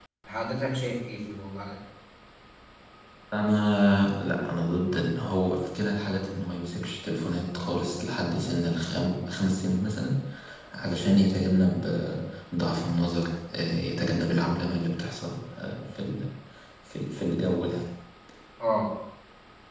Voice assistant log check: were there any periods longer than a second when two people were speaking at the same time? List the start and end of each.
none

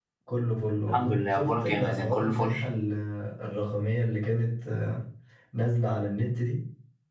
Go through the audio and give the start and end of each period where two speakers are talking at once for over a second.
0.9-2.5

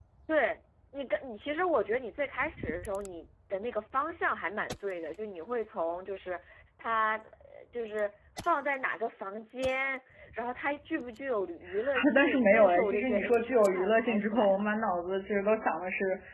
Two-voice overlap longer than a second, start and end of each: 11.9-14.6

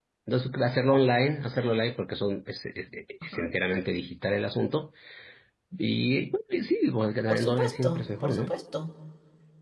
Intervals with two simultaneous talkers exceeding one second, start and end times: 7.3-8.5

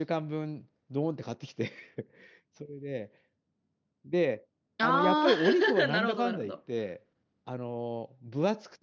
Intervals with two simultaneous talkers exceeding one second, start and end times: 4.8-6.5

